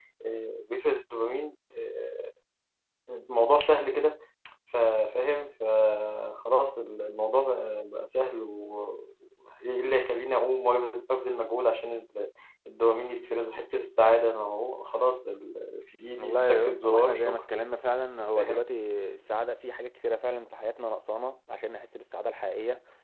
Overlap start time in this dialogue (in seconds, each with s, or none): 16.1 s